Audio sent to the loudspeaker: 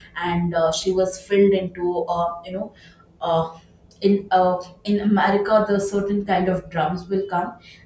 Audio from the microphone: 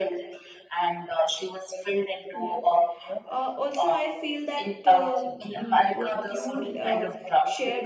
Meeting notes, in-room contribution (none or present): present